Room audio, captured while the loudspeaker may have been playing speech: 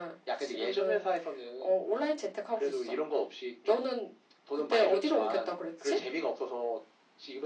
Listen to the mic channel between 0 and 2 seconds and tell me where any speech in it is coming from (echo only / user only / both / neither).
echo only